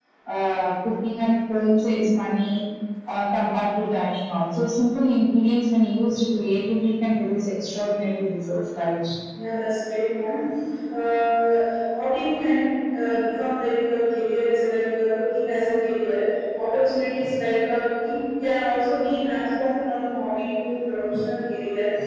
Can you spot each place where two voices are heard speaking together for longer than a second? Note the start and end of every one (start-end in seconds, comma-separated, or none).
none